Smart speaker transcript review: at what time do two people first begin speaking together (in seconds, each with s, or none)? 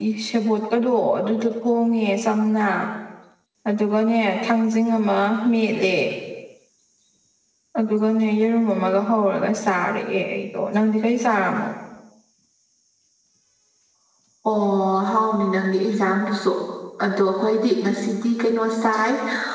none